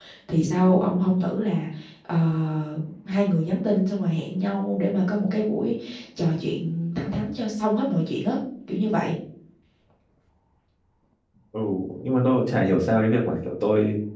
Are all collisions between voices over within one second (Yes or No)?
Yes